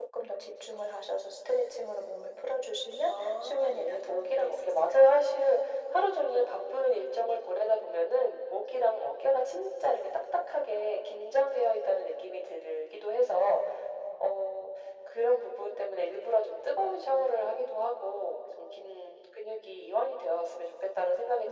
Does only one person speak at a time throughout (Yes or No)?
No